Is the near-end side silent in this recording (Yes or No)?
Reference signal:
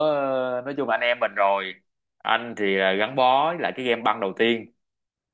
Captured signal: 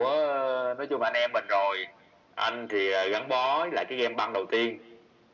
Yes